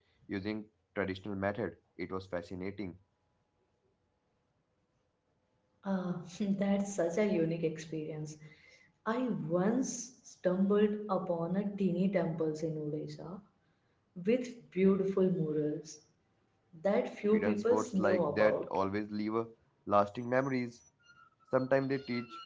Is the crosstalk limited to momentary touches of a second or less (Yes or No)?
No